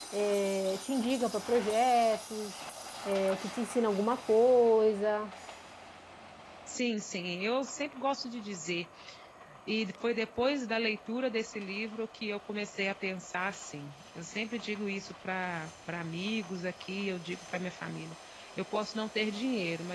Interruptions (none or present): none